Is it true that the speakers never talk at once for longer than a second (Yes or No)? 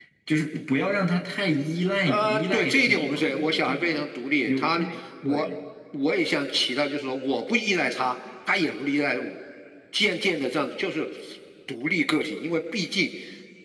No